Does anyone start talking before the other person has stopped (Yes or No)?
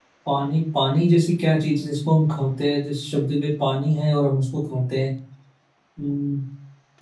No